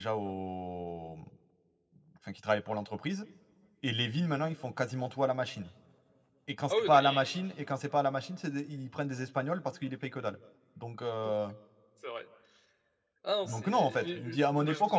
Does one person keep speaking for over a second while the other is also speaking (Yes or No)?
Yes